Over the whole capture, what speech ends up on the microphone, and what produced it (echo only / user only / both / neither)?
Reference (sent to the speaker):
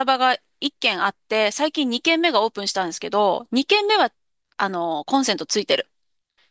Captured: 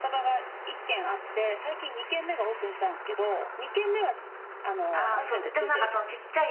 both